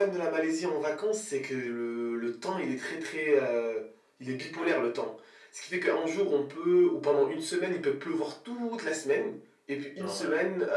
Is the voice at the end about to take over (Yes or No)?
No